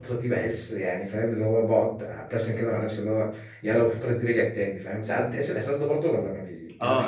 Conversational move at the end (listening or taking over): taking over